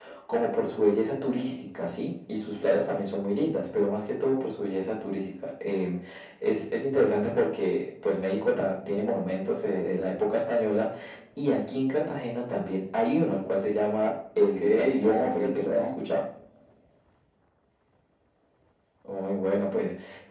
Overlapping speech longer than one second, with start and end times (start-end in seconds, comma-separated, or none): 14.6-15.9